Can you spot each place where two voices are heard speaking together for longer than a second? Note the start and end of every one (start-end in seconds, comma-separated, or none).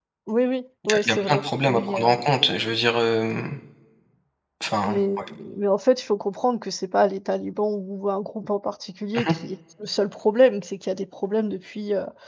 0.9-2.2